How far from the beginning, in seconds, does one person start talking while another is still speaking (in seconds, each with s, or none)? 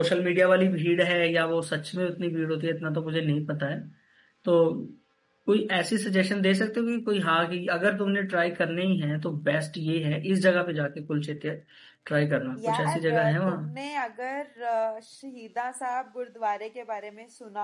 12.6 s